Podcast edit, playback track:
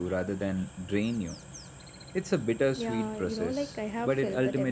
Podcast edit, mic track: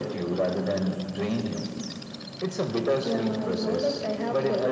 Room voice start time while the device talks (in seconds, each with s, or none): none